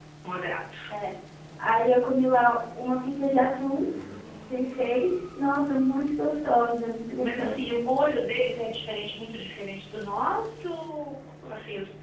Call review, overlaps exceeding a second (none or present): none